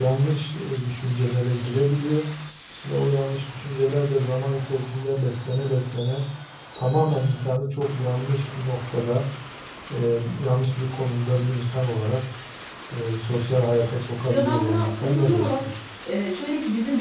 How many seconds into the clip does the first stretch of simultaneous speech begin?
14.3 s

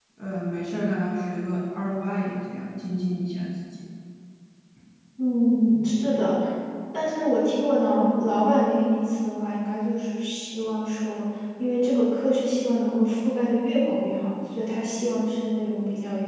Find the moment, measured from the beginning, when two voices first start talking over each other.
none

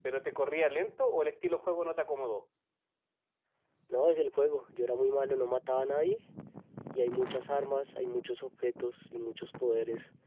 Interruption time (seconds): none

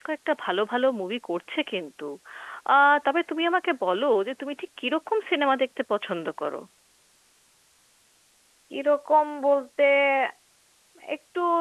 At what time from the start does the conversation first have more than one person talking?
none

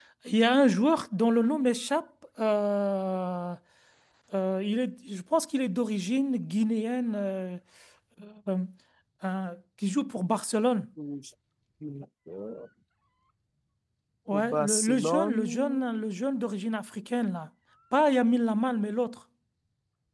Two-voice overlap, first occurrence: 14.3 s

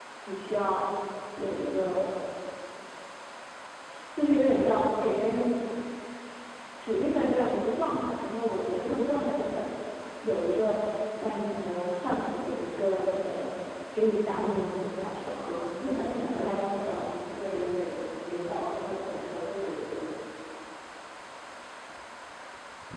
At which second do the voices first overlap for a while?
15.2 s

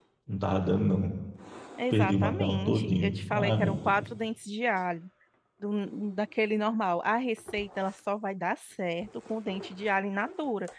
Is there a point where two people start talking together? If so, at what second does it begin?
1.9 s

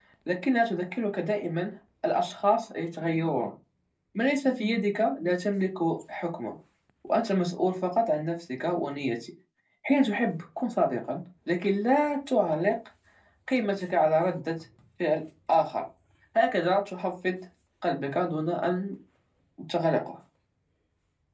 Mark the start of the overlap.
none

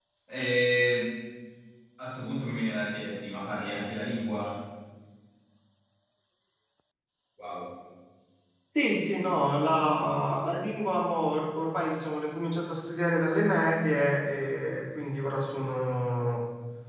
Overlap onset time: none

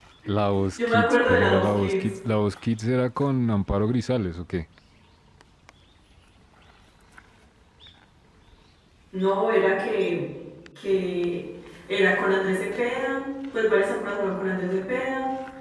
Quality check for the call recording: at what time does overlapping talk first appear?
0.8 s

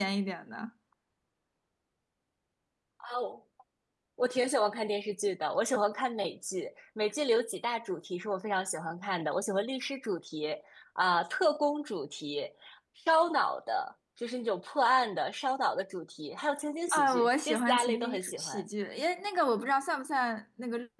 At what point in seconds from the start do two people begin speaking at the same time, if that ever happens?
16.9 s

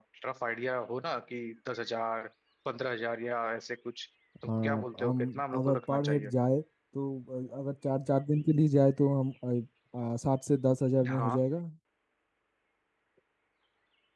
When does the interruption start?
4.6 s

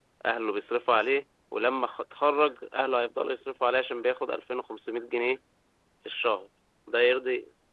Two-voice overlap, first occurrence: none

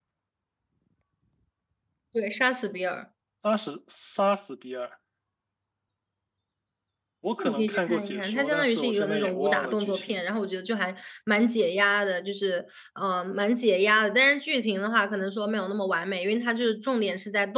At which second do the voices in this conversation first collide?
7.4 s

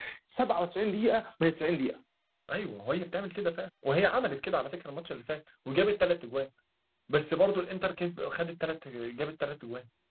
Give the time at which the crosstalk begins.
none

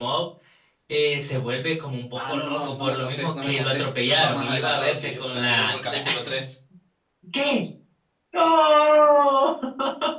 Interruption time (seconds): 2.2 s

